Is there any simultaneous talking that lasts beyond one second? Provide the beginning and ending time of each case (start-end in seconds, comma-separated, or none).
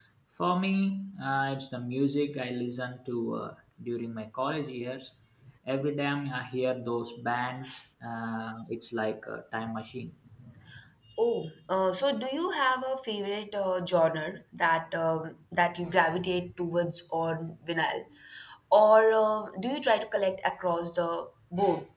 none